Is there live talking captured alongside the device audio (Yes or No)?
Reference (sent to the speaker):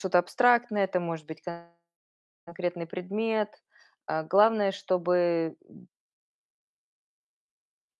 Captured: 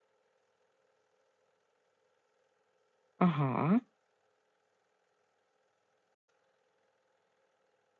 Yes